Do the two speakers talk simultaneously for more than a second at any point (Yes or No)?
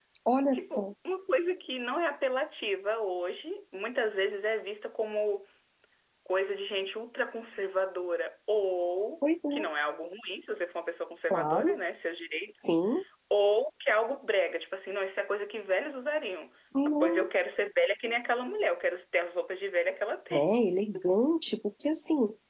No